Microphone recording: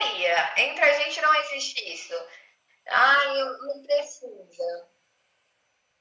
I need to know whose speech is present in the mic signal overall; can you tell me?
echo only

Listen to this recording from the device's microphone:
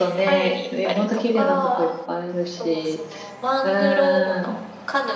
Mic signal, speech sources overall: both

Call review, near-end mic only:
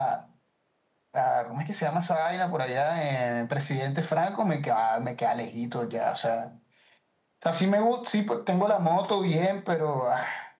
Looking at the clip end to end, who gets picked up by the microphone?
echo only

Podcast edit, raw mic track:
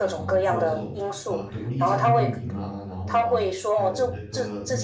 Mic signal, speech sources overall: both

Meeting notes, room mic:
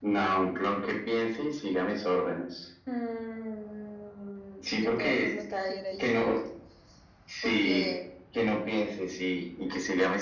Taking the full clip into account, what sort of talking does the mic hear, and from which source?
both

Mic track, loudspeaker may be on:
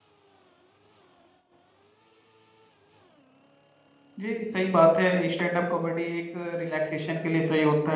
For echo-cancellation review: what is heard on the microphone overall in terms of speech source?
user only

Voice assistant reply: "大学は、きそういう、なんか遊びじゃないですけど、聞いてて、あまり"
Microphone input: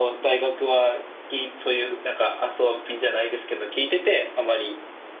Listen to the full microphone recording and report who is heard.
echo only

